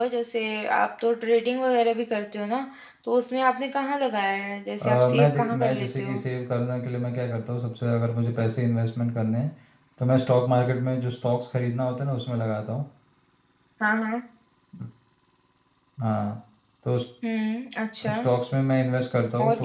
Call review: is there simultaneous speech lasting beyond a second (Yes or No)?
Yes